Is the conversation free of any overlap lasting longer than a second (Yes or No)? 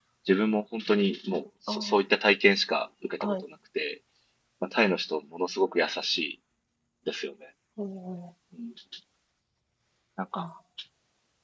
Yes